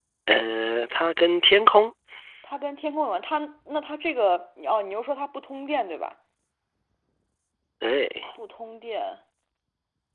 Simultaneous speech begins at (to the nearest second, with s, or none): none